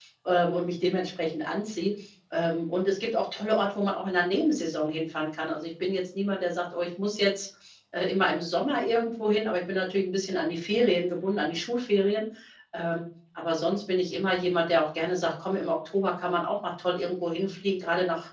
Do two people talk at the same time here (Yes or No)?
No